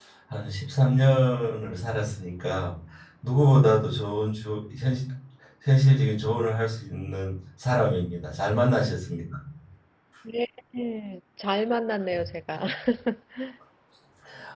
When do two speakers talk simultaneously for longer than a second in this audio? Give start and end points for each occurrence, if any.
none

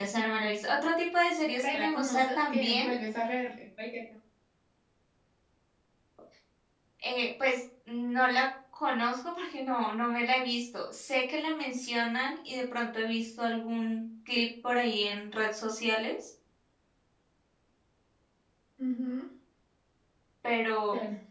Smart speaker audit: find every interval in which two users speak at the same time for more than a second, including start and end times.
1.6-2.9

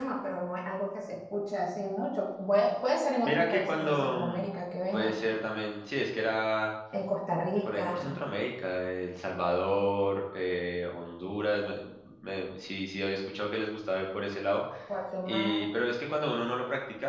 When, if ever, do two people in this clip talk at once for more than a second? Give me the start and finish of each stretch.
3.2-4.5

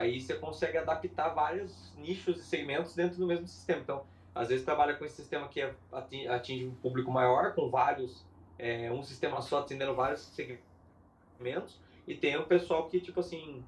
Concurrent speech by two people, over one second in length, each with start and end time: none

